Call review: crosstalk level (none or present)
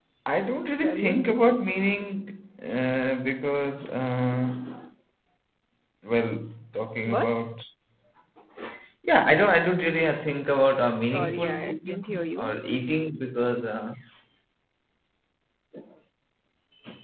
present